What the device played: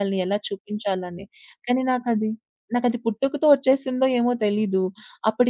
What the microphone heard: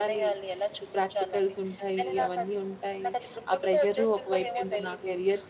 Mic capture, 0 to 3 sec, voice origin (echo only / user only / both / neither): both